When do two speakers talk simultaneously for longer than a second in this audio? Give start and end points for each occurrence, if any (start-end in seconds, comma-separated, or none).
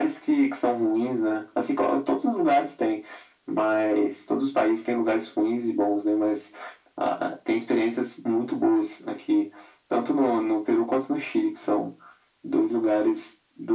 none